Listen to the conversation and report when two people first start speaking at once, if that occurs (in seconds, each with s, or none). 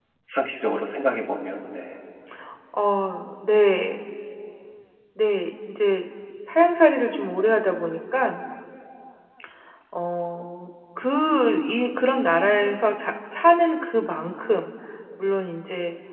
none